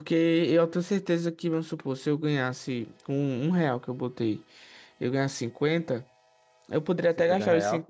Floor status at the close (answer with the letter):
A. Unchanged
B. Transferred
A